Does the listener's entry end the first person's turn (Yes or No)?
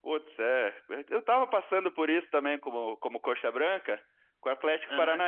No